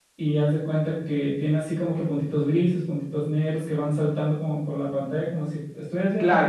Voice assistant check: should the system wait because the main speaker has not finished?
No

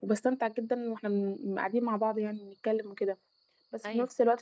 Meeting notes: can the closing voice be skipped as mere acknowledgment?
Yes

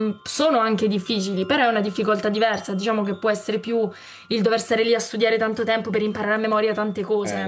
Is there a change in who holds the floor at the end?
Yes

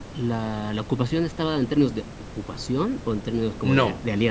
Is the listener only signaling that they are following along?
No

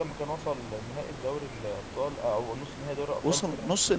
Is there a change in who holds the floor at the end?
Yes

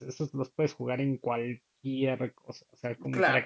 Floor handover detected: No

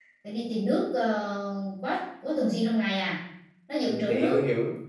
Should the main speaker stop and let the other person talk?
Yes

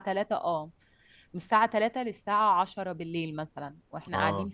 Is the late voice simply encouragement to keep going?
No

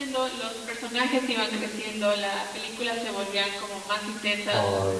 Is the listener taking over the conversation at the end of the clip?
No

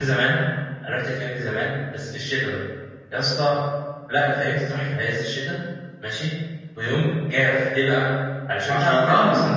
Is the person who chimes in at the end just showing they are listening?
Yes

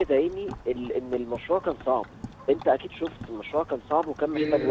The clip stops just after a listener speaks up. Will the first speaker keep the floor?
No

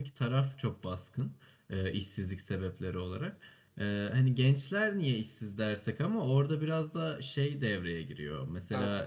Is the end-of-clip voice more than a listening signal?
No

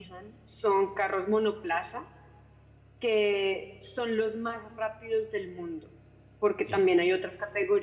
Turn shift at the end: No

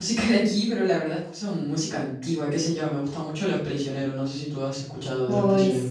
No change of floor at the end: No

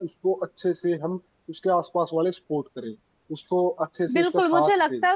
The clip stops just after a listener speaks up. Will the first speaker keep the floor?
No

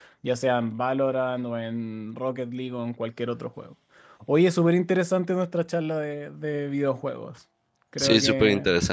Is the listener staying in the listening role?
No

